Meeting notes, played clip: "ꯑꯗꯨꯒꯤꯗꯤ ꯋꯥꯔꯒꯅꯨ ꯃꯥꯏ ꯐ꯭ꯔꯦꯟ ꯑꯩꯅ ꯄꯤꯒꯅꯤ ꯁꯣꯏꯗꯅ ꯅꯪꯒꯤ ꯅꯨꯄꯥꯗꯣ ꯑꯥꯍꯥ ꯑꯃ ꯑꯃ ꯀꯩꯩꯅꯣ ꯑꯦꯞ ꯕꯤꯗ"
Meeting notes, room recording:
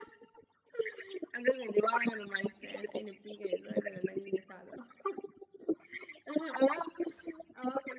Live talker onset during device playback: none

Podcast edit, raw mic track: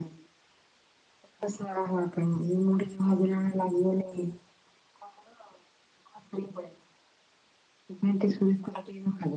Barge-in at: none

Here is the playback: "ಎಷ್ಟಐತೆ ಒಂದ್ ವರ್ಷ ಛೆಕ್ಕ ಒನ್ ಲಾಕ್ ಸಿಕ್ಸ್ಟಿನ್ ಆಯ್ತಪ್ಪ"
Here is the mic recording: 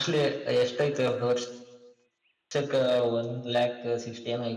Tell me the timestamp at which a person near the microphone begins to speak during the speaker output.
none

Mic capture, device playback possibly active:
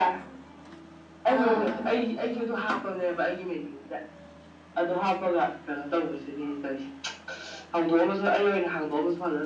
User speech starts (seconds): 1.3 s

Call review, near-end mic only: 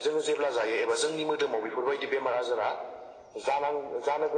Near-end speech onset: none

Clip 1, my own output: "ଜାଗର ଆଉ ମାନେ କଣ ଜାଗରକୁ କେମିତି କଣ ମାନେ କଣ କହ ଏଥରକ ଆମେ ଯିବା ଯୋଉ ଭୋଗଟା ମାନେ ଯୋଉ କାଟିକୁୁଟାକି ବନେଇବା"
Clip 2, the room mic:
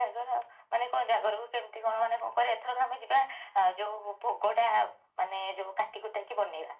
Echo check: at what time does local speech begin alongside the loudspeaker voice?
none

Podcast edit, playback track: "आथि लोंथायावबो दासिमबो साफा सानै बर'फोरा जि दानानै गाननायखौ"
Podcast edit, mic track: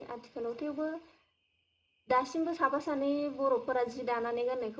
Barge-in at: none

